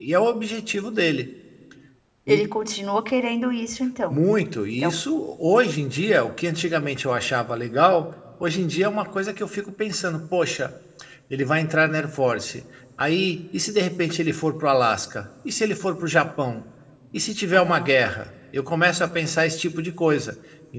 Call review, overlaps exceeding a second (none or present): none